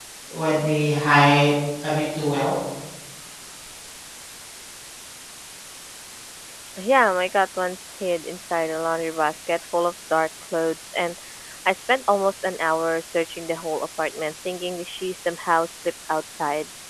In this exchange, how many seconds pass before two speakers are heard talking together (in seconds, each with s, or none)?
none